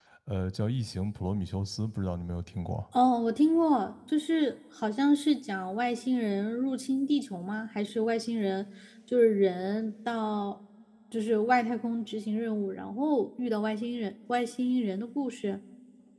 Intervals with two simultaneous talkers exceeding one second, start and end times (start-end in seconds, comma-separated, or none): none